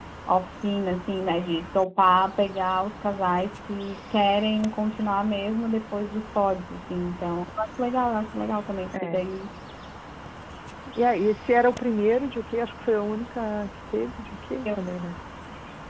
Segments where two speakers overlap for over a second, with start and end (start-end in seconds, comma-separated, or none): none